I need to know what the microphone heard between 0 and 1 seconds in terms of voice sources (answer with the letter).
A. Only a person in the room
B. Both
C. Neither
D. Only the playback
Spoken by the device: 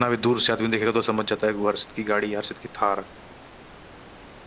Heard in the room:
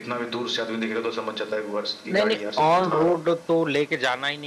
D